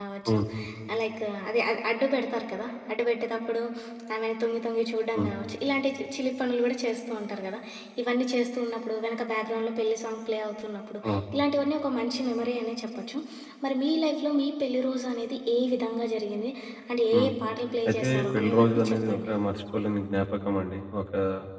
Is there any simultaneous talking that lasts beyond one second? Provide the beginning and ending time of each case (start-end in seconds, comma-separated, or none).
17.9-19.3